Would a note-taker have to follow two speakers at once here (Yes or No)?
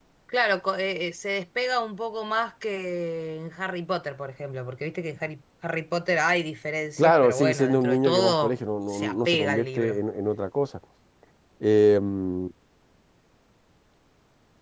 Yes